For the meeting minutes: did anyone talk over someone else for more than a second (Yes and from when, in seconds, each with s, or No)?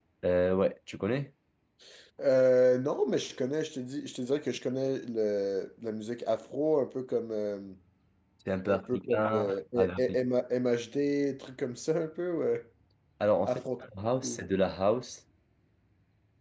Yes, from 8.7 s